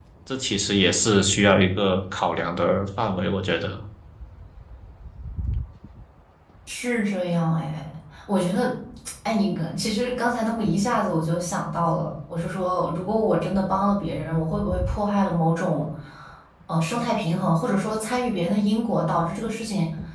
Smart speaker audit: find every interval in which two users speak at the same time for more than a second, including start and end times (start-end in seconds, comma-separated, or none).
none